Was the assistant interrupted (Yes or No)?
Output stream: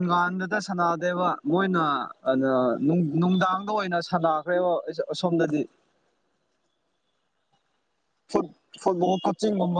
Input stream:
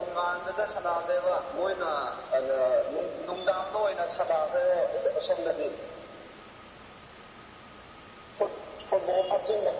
No